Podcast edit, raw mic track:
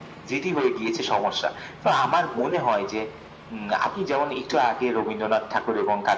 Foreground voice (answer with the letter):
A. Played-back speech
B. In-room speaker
A